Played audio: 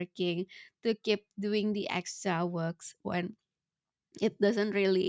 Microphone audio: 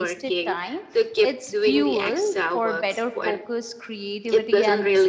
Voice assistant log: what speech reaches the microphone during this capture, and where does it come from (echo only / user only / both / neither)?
both